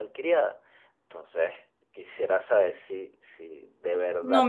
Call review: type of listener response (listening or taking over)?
taking over